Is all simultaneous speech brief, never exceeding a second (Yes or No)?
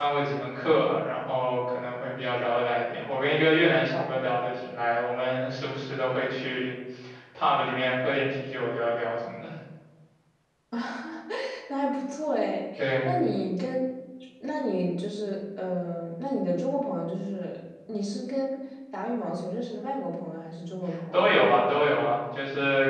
Yes